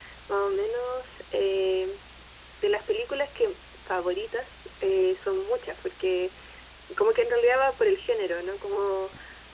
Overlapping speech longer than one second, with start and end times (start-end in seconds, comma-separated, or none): none